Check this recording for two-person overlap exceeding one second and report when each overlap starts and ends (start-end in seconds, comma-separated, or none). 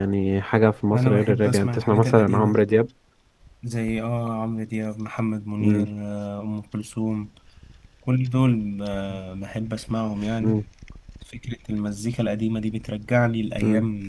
0.9-2.5